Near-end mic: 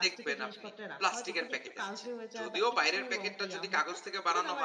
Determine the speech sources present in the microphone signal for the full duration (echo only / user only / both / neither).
both